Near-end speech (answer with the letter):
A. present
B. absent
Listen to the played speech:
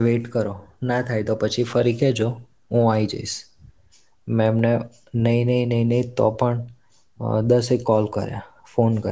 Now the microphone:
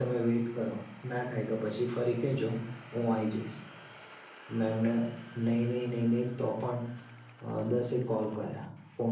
B